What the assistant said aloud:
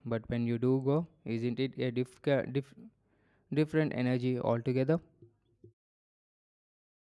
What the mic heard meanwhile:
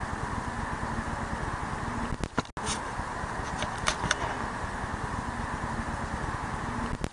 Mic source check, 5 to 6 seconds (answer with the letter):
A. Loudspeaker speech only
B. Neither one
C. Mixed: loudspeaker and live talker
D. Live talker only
B